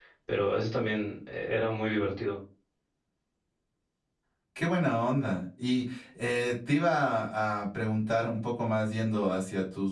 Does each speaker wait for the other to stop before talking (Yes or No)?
Yes